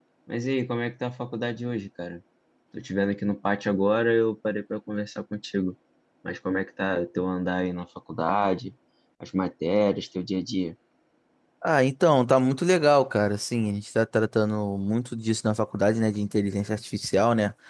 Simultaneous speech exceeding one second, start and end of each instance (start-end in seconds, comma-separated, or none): none